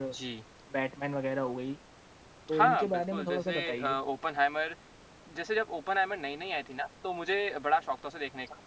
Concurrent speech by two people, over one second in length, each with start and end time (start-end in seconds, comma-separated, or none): 2.5-4.0